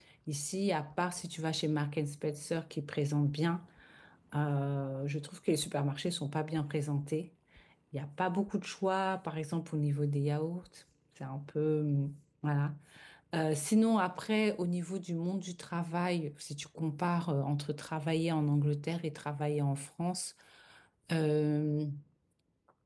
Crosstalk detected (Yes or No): No